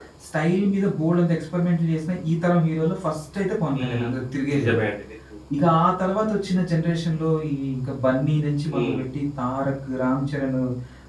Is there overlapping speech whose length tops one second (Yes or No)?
No